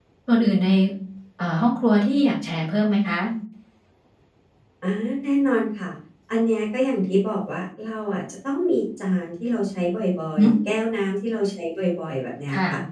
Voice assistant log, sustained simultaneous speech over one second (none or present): none